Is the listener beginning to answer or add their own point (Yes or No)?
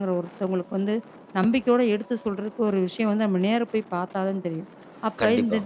No